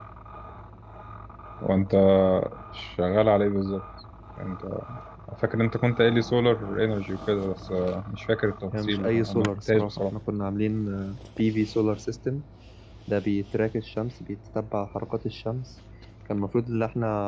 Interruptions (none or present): present